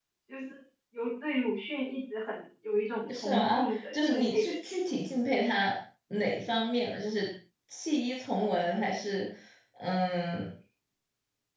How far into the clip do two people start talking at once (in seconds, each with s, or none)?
3.1 s